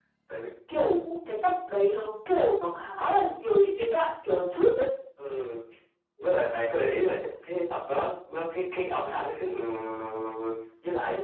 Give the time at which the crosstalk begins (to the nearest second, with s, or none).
none